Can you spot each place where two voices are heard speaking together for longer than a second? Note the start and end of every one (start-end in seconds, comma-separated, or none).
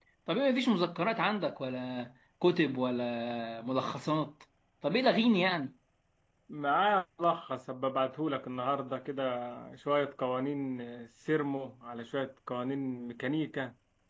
none